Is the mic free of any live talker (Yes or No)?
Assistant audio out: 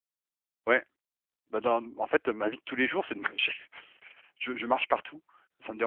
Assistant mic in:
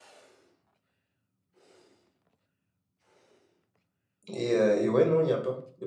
No